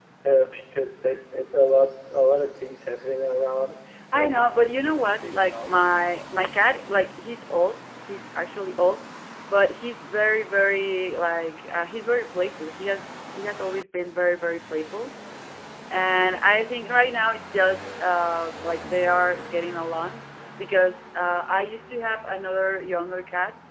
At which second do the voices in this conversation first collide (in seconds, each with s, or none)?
4.1 s